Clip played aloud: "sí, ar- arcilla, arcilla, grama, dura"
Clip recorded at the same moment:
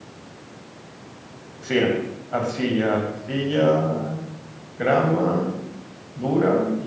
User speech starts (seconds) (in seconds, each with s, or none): none